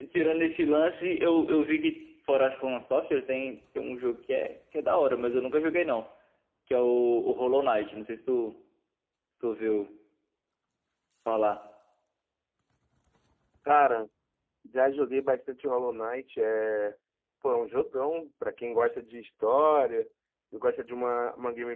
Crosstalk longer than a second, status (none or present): none